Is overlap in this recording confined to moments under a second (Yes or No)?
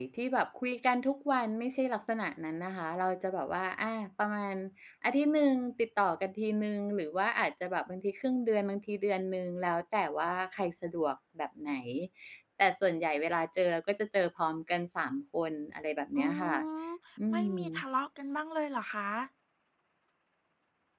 Yes